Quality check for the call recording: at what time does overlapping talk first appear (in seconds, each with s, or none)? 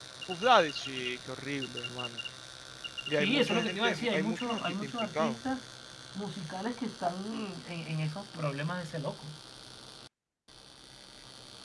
3.1 s